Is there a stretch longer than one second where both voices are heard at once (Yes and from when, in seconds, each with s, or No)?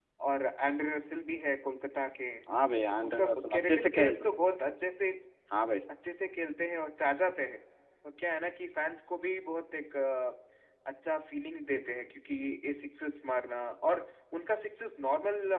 Yes, from 3.0 s